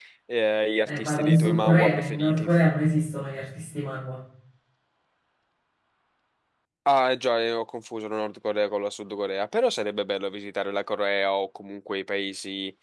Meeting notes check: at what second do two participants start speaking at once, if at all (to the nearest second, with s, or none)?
1 s